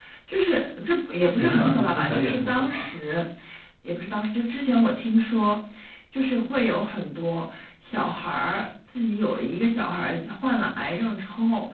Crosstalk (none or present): present